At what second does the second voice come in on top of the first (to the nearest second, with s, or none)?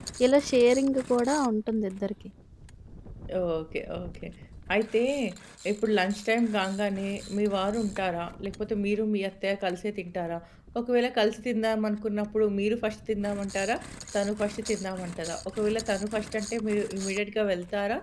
none